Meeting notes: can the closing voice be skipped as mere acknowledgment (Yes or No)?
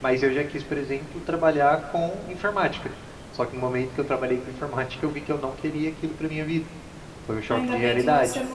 No